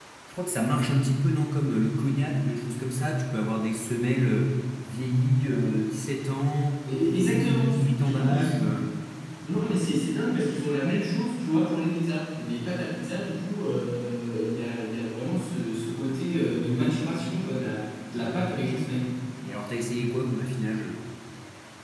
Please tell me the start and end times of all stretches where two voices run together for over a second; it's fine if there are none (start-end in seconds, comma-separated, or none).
7.0-8.6